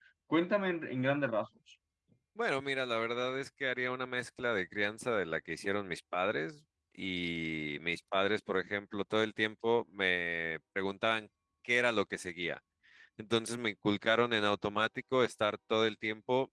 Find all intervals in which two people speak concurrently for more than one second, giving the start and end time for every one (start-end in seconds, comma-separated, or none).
none